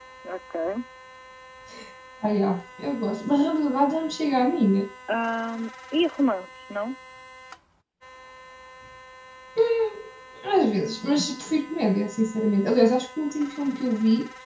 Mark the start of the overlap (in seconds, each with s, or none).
none